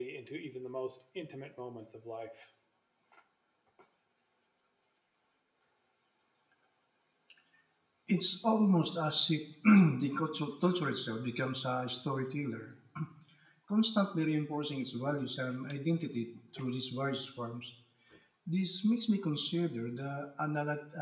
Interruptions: none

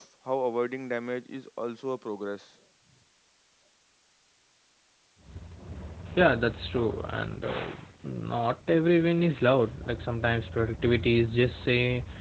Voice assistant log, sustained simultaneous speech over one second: none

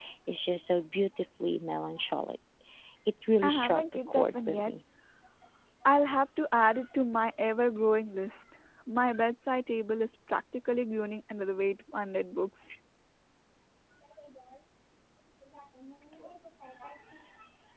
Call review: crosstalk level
present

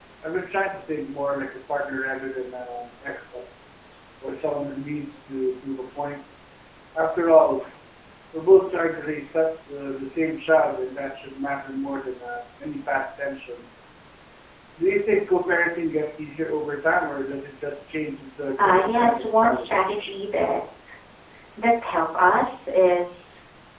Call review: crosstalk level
present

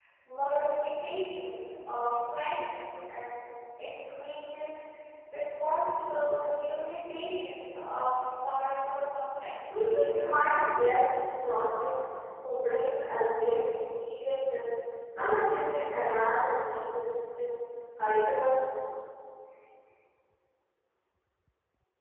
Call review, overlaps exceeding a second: none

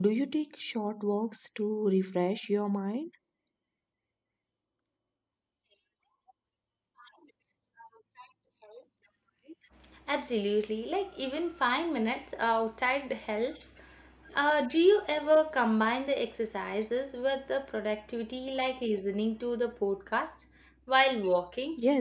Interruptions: none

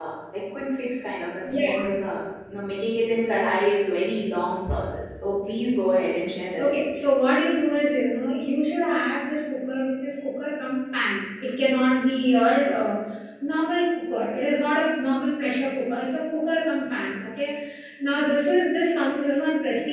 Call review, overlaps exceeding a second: none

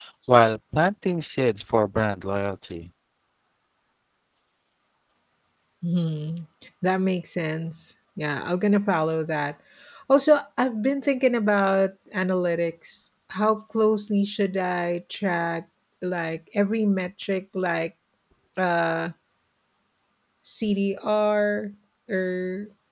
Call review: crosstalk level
none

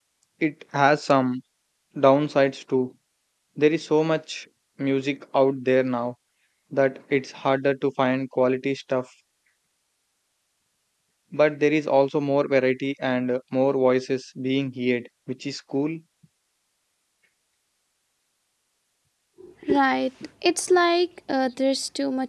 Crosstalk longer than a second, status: none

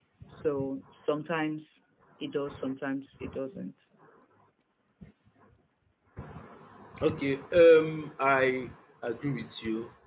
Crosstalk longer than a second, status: none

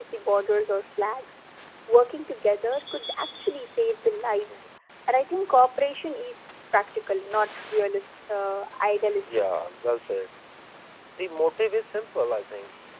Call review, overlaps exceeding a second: none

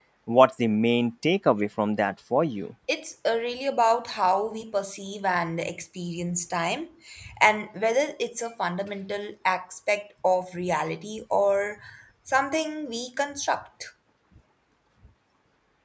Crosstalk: none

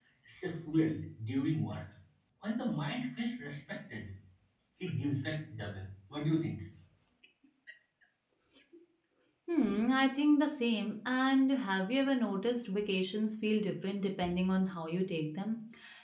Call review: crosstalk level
none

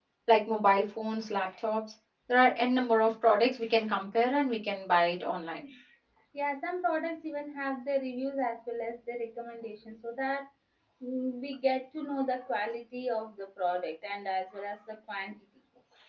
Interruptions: none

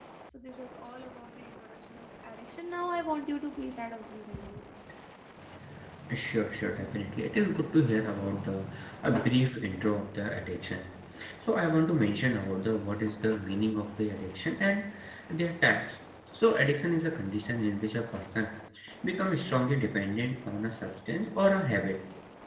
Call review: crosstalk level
none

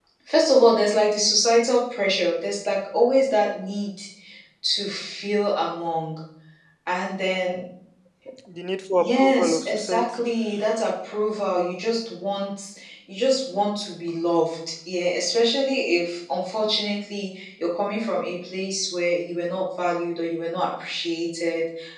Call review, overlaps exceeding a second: present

